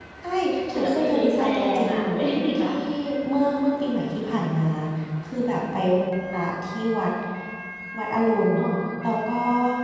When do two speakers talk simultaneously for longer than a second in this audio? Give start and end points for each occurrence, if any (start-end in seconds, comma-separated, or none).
0.7-2.0